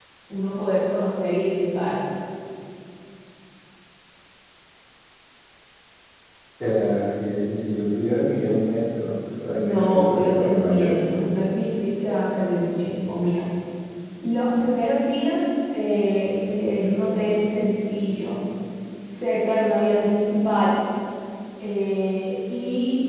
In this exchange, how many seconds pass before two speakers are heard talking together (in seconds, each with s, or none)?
9.5 s